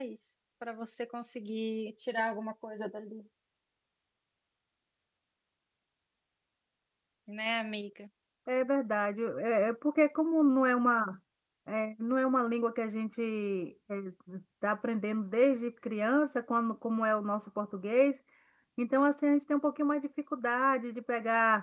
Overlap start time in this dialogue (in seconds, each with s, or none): none